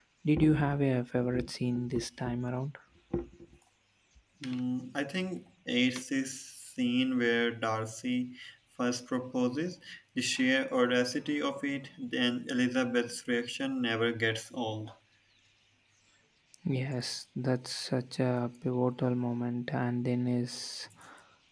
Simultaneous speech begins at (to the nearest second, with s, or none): none